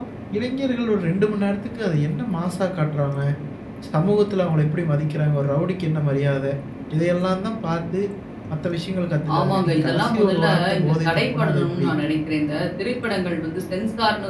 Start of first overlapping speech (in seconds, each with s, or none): 9.4 s